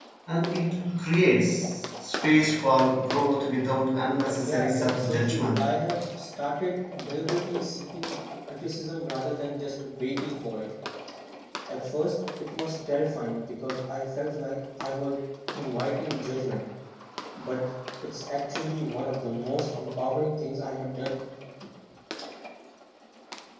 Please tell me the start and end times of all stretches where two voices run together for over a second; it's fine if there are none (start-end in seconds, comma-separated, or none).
4.3-5.6